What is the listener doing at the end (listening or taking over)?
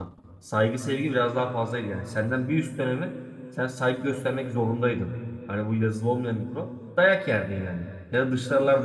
listening